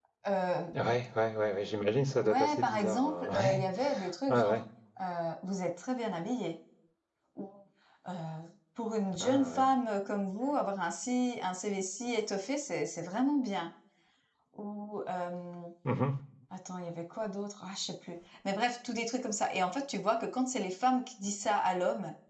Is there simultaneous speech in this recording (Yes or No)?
Yes